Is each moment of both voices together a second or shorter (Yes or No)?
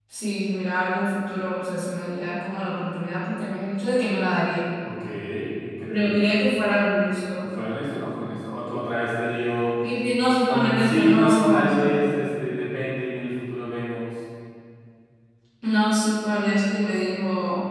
No